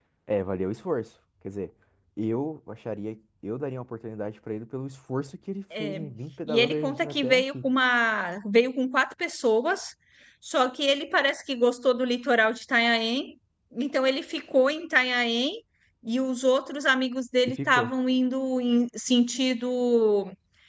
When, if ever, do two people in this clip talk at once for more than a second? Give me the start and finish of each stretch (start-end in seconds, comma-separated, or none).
6.5-7.7